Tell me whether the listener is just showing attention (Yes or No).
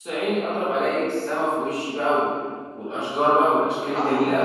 No